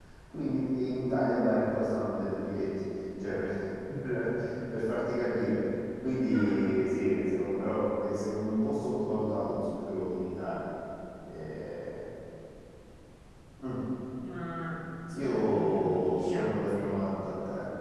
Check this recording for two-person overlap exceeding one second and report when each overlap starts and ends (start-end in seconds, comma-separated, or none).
15.2-17.0